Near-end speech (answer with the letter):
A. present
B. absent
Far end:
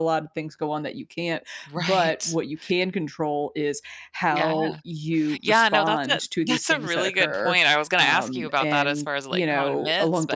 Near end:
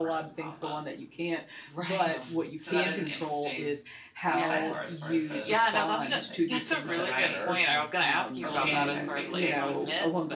A